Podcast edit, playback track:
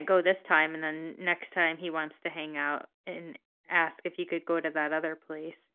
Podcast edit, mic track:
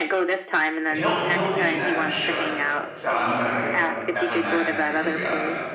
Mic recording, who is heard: both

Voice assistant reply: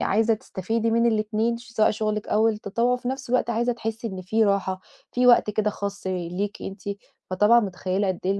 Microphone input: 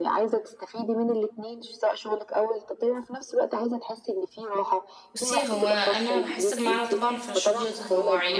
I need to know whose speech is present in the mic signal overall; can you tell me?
both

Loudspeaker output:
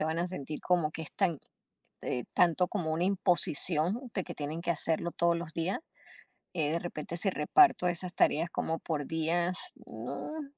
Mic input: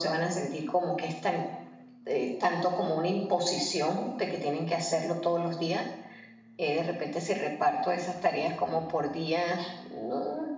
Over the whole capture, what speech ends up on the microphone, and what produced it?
echo only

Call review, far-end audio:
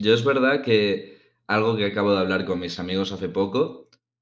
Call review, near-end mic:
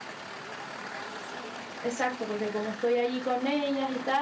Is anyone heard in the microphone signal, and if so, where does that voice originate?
user only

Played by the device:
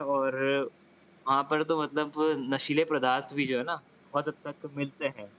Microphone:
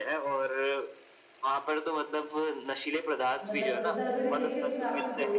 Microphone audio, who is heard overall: both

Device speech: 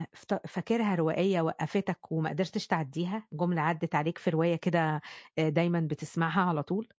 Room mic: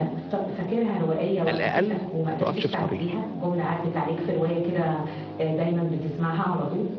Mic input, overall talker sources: both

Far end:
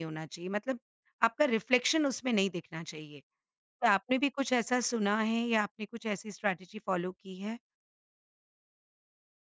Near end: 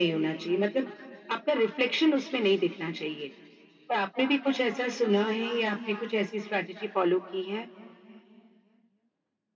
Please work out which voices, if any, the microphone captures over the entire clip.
echo only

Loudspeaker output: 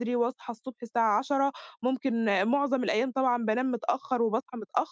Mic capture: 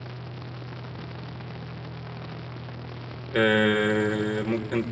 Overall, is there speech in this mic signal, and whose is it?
user only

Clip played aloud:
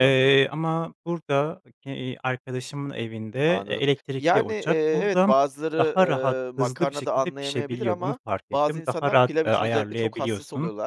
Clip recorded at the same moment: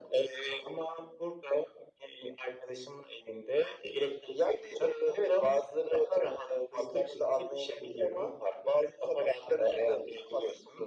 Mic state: echo only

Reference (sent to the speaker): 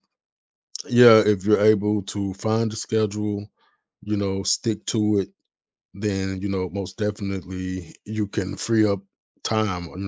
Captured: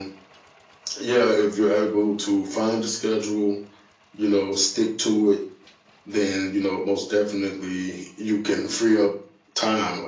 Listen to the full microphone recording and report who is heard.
echo only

